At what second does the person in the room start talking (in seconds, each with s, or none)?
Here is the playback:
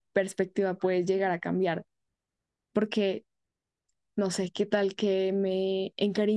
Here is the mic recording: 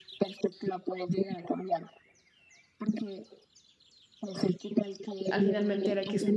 5.3 s